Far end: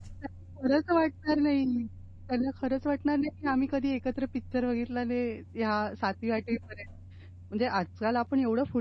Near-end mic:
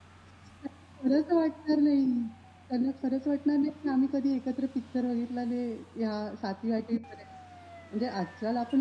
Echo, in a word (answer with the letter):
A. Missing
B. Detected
B